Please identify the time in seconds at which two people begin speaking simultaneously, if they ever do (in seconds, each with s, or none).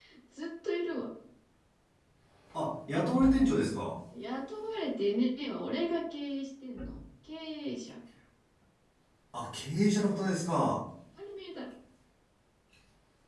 none